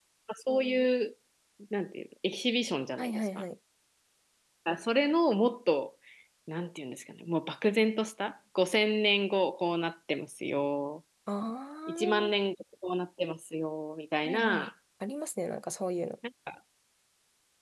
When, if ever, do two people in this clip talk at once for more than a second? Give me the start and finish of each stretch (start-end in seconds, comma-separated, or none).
none